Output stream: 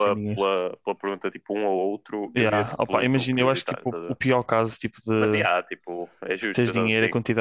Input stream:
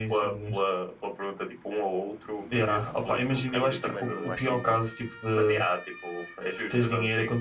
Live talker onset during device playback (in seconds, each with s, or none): 3.5 s